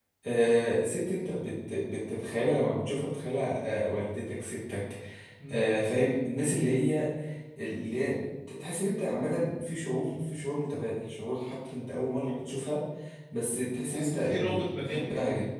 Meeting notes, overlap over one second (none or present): present